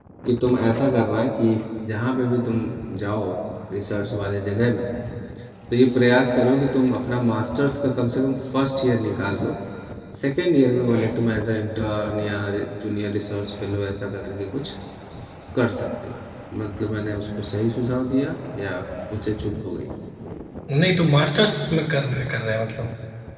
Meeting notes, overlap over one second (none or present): none